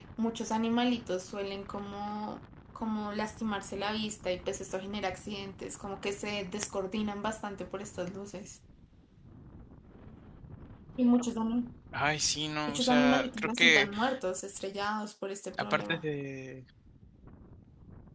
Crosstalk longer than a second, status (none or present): present